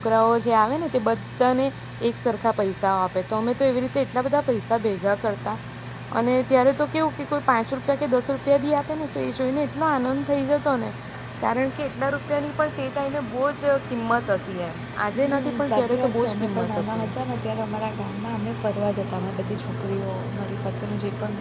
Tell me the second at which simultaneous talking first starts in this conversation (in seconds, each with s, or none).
15.1 s